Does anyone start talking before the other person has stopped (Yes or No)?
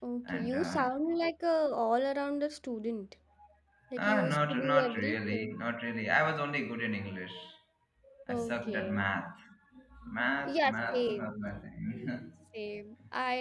Yes